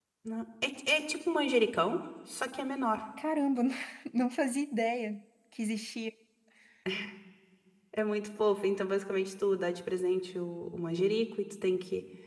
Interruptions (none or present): none